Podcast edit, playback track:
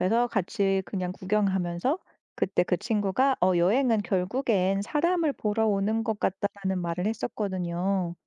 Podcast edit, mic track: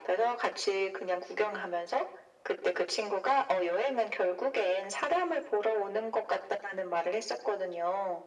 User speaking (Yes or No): No